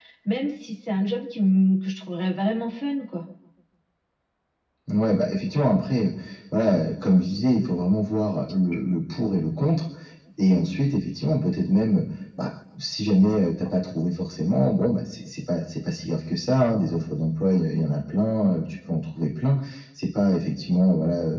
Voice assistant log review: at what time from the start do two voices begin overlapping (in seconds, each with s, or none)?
none